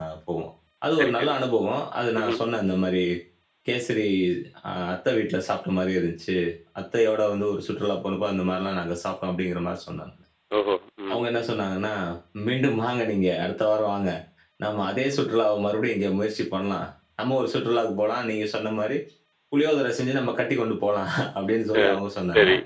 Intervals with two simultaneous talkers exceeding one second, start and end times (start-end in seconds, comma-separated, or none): none